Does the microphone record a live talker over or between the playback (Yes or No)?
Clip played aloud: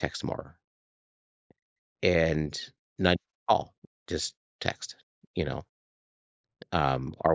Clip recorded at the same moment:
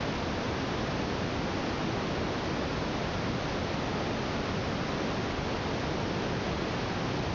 No